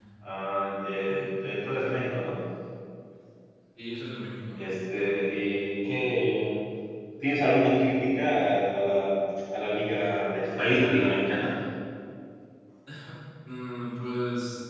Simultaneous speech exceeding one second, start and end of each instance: none

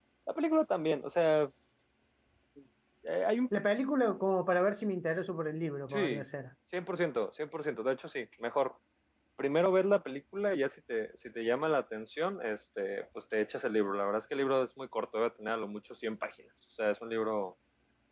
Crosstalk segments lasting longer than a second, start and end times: none

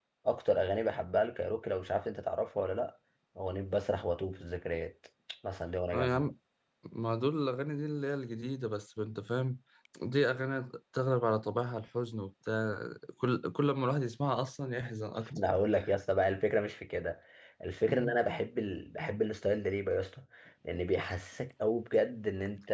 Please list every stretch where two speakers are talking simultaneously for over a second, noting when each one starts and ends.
none

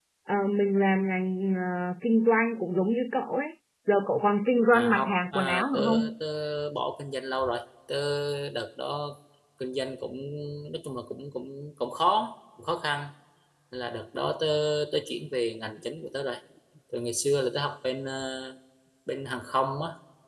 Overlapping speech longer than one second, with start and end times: 4.7-6.1

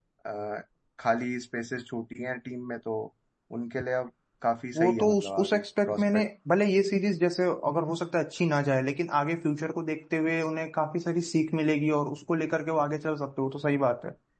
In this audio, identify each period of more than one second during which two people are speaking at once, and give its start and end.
4.8-6.2

